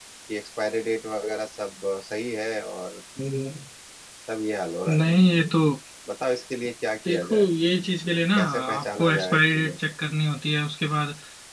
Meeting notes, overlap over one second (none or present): present